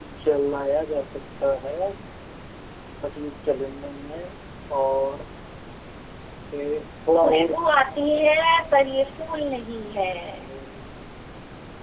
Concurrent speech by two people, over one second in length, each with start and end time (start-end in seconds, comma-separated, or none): none